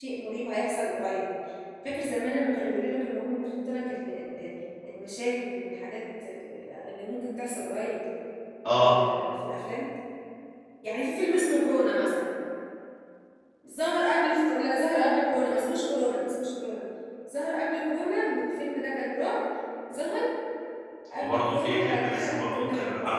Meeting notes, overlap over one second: present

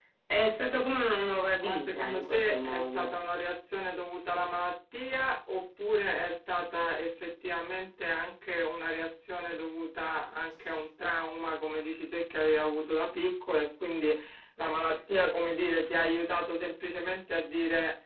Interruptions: present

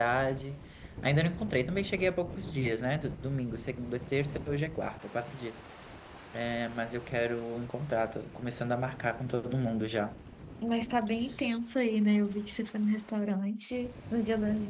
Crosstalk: none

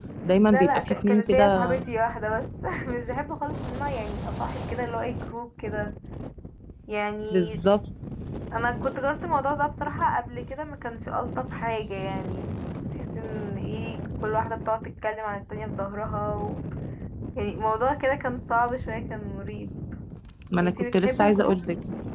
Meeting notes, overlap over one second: present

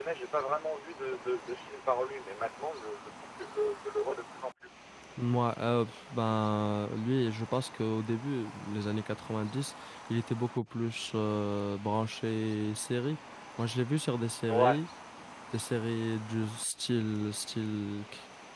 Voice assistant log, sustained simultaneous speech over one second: none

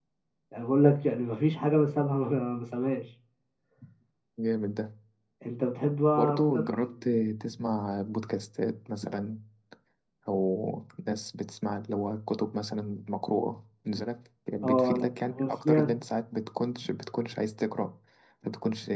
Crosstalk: present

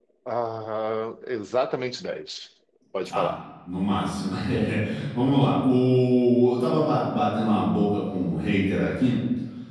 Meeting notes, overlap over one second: none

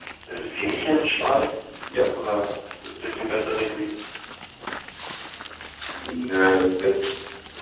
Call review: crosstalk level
none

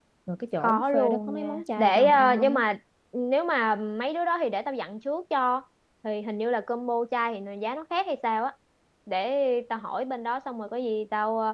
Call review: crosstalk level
present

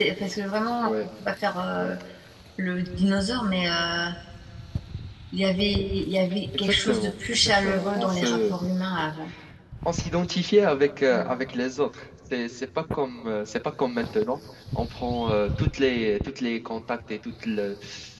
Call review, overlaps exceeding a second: present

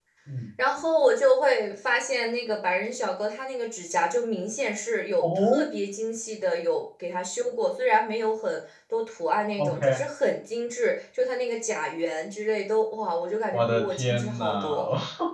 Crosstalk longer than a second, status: present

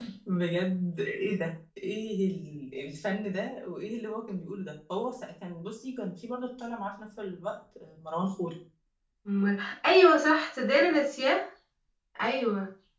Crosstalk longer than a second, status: none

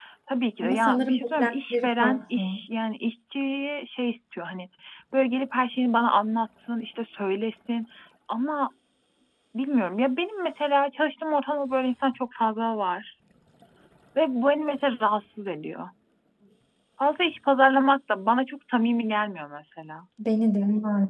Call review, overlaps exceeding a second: present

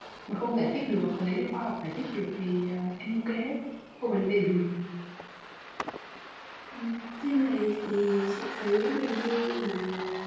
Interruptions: none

